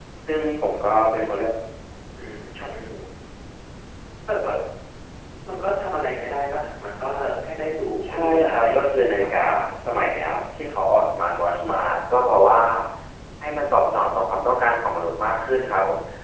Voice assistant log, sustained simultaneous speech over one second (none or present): present